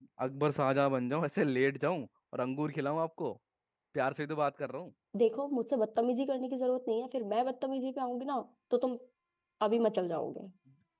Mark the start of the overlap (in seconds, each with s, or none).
none